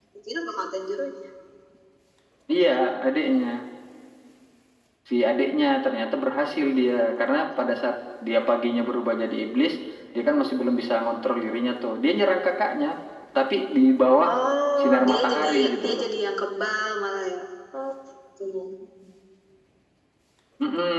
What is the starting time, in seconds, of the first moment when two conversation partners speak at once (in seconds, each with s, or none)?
14.8 s